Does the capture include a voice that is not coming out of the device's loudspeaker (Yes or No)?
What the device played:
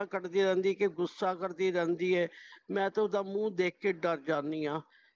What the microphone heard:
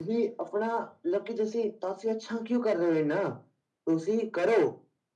Yes